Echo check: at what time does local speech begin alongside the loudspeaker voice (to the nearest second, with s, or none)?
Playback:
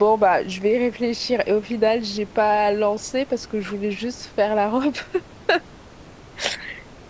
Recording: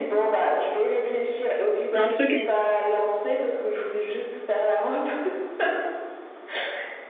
2 s